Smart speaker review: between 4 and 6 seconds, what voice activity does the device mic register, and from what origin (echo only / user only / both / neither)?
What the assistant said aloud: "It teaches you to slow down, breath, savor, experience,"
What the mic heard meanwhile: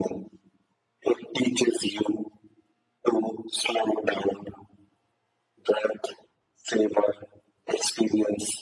echo only